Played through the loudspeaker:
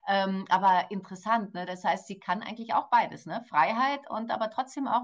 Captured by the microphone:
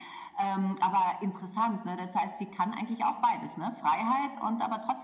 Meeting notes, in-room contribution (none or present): none